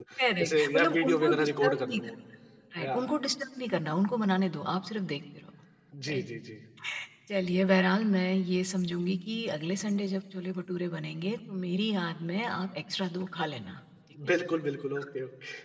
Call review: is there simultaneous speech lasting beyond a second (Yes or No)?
Yes